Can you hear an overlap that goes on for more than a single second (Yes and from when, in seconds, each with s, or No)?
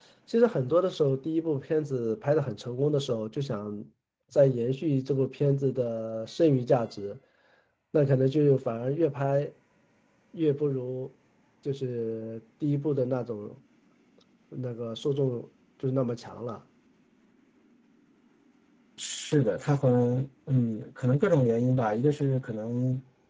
No